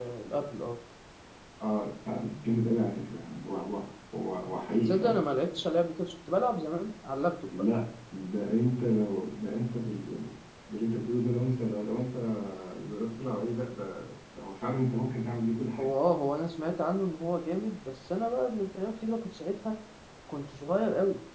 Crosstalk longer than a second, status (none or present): none